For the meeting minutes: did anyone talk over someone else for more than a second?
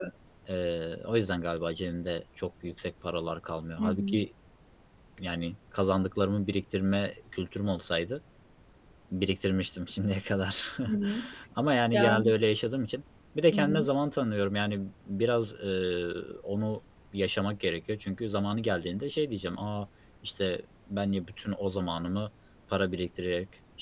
No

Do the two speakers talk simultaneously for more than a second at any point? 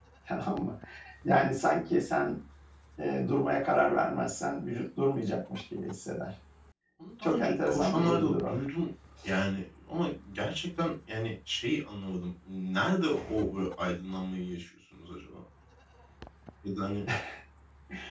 Yes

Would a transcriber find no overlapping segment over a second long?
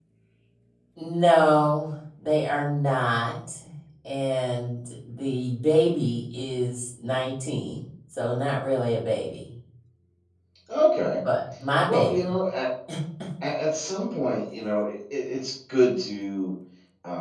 Yes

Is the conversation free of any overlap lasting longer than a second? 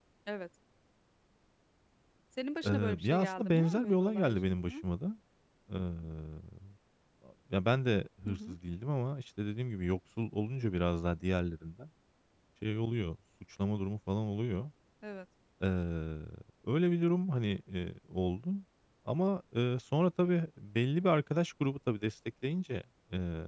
No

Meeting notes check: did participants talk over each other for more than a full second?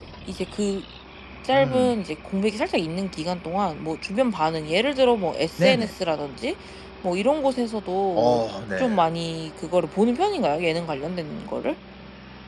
No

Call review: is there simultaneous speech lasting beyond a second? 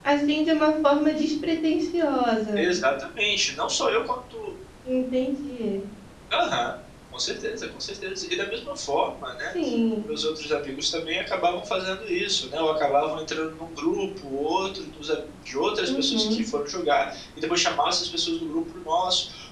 No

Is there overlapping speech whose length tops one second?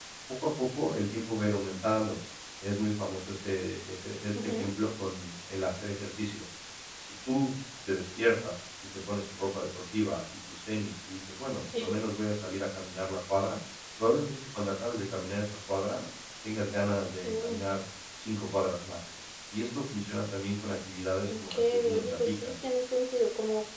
Yes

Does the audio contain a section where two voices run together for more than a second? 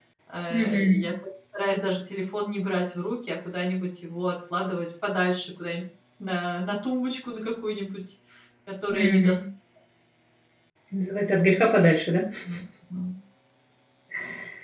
No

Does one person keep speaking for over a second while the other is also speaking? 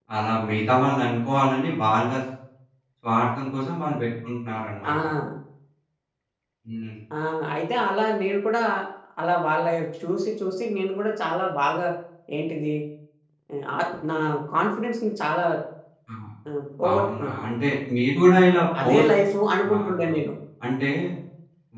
No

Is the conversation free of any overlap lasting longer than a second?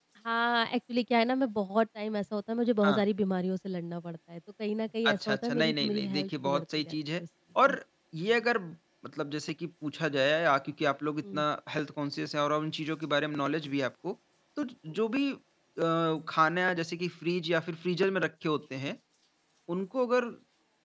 No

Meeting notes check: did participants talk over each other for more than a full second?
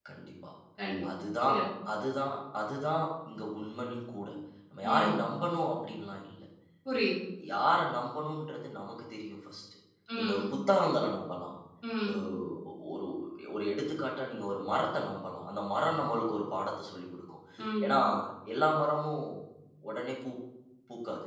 No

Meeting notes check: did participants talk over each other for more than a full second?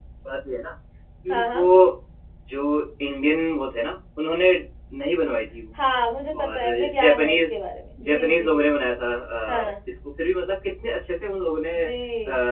Yes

